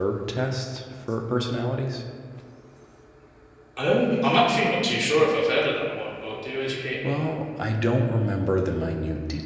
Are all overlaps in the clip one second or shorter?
Yes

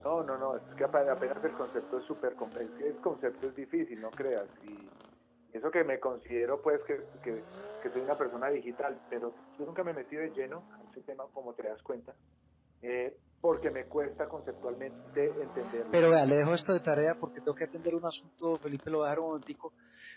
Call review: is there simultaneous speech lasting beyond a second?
No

